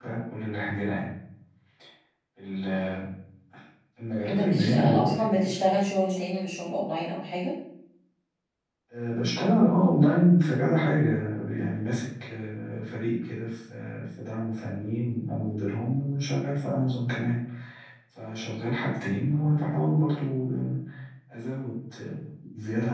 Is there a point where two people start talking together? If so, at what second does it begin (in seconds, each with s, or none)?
4.3 s